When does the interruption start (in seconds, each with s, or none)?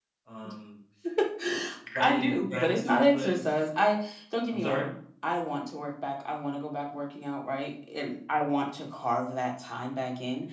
2.0 s